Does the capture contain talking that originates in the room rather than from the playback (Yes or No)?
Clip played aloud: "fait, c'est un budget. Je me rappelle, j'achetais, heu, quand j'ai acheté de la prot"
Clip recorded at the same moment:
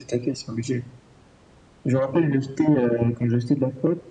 No